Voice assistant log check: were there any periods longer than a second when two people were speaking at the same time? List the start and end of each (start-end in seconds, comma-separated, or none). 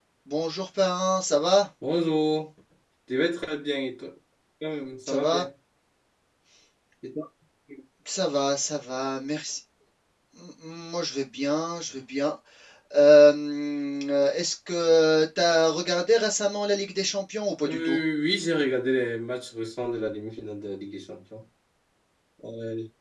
none